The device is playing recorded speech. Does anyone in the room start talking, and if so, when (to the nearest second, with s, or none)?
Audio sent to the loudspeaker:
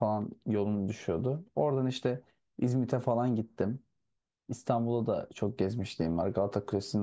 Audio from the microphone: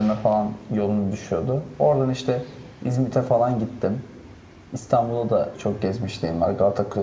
none